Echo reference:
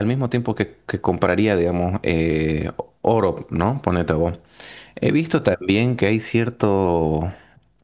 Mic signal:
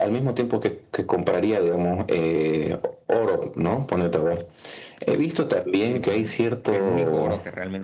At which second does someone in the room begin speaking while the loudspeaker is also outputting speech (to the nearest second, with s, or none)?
6 s